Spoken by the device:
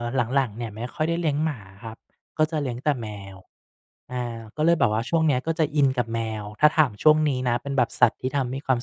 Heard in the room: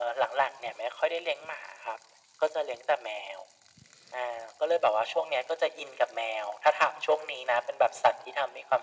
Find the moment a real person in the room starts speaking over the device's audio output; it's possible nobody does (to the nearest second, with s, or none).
none